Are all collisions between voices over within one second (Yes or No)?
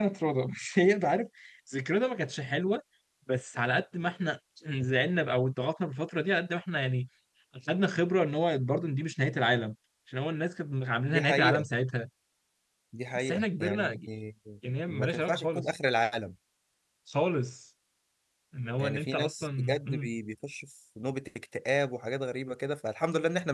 No